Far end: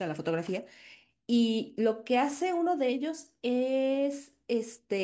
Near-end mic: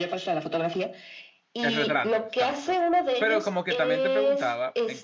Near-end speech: present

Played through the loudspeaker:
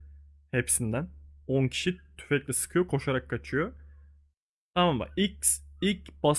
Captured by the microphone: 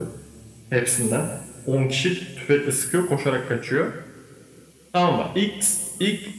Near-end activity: none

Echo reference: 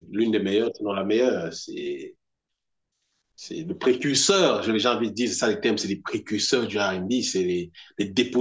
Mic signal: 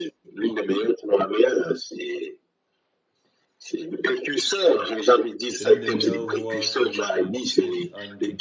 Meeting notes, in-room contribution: present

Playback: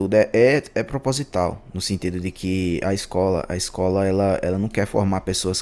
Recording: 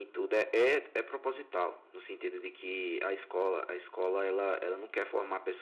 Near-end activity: none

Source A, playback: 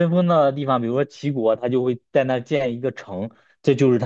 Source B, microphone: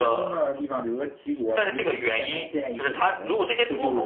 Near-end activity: present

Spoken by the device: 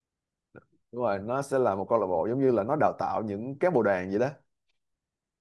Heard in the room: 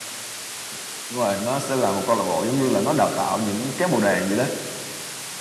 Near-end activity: none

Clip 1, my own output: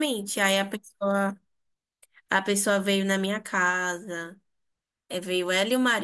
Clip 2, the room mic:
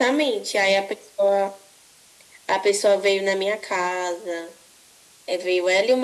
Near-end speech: none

